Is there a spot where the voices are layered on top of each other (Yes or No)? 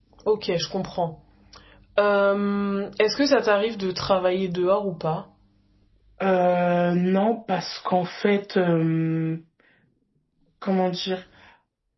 No